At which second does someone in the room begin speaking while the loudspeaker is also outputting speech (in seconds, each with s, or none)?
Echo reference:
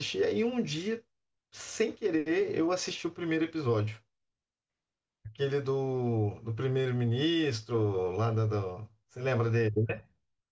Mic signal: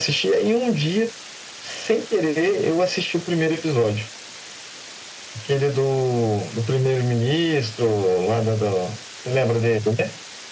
none